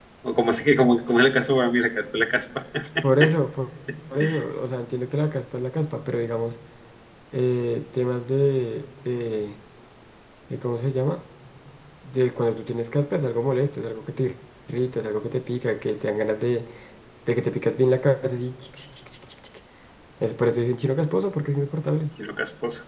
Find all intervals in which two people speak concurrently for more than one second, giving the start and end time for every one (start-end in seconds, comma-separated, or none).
none